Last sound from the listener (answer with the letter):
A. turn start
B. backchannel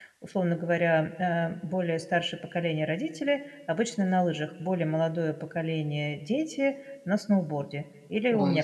A